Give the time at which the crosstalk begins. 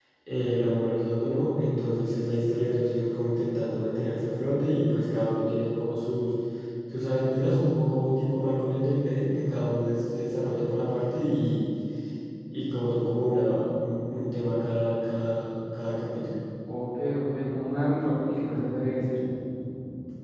none

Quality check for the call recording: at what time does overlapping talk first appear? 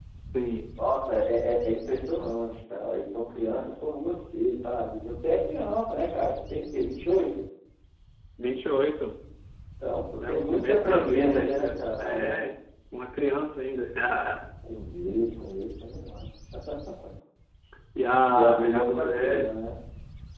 10 s

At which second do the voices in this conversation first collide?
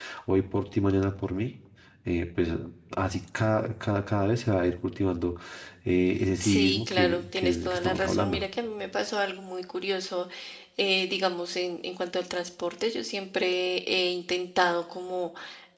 6 s

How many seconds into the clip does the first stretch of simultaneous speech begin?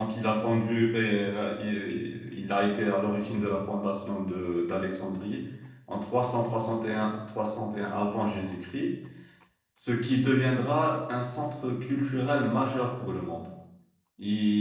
none

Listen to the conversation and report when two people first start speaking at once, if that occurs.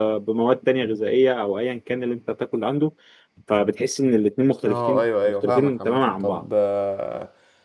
5 s

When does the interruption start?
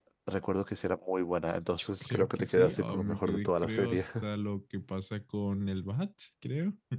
2 s

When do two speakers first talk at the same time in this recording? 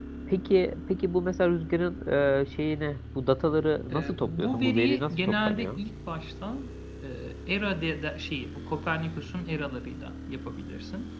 4 s

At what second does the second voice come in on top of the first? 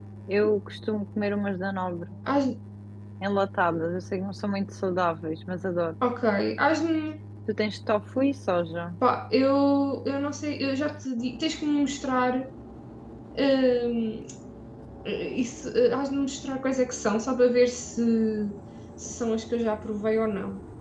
none

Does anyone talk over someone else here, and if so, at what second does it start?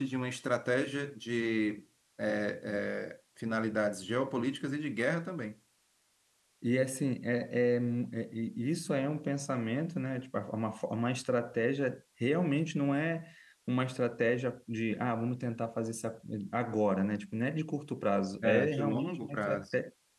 18 s

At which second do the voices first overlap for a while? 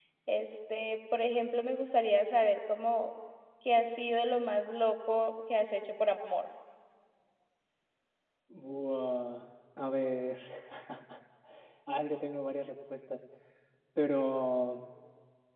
none

